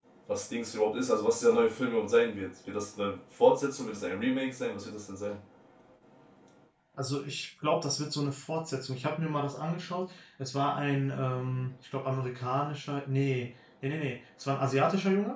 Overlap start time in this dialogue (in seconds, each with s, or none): none